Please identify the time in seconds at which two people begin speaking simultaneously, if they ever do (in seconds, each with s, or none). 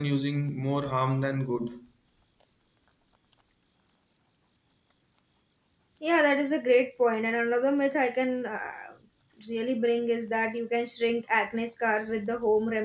none